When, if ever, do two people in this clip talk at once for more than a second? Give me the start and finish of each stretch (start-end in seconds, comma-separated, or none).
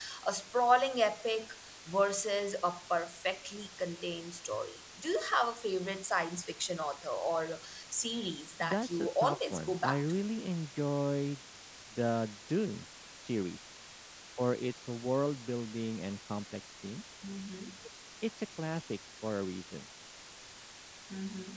8.6-10.2